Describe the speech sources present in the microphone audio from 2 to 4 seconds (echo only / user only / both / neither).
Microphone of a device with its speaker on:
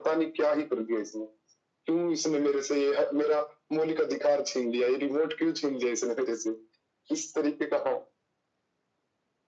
echo only